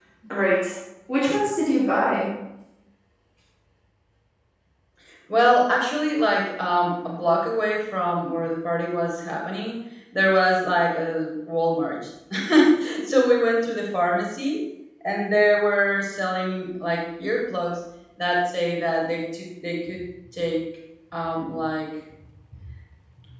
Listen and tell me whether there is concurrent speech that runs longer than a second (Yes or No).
No